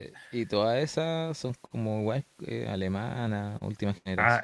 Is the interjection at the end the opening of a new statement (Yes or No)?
Yes